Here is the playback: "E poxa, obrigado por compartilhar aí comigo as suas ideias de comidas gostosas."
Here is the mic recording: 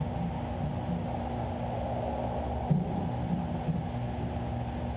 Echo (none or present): none